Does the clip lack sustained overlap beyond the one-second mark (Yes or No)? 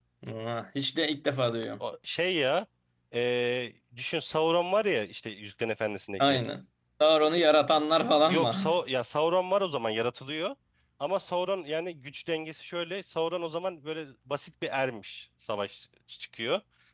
Yes